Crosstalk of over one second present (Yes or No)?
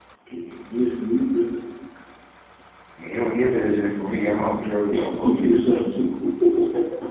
No